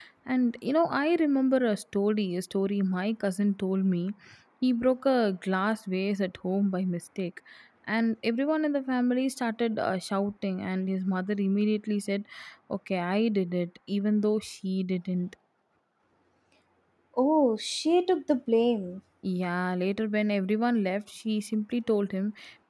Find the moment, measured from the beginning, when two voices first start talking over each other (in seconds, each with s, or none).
none